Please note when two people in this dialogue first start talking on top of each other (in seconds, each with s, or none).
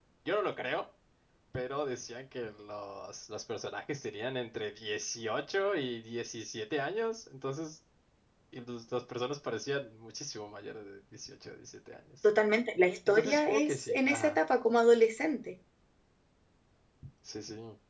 13.1 s